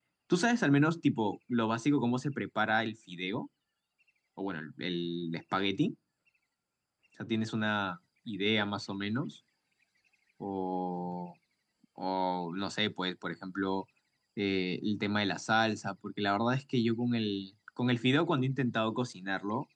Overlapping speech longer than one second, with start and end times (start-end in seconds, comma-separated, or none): none